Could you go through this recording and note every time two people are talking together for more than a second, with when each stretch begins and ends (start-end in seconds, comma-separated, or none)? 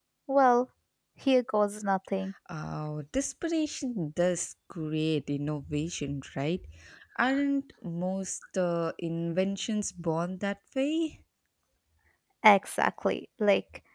none